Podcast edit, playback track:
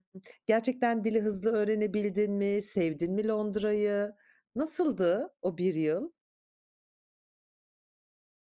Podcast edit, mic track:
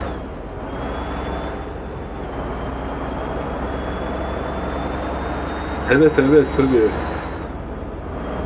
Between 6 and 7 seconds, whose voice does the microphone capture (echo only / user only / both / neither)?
user only